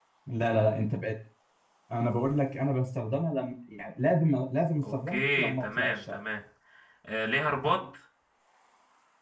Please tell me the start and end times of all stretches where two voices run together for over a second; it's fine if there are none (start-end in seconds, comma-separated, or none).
4.8-6.2